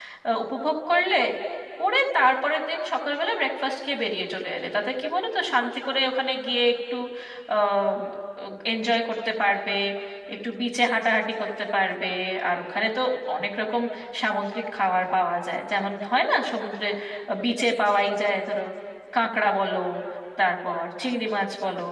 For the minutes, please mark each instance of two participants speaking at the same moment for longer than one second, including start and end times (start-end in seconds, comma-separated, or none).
none